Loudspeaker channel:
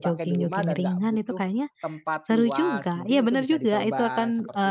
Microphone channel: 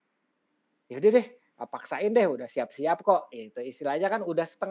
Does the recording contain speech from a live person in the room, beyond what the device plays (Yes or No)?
Yes